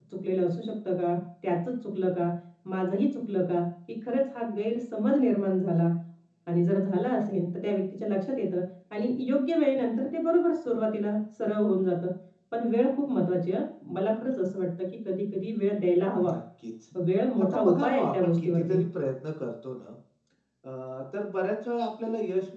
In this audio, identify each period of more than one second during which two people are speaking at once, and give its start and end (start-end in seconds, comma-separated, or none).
17.4-18.8